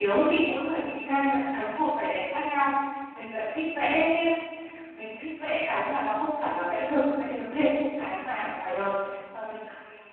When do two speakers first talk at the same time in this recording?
none

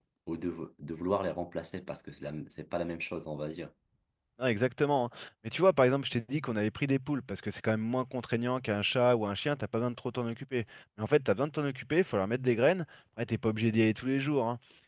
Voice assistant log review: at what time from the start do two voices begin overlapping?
none

